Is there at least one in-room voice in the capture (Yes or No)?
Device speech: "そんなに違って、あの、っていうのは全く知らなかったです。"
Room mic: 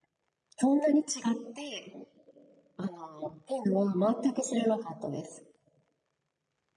No